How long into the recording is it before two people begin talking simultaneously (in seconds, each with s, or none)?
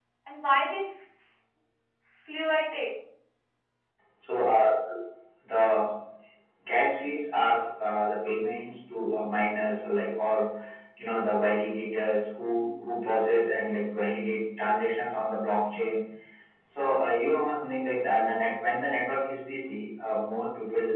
none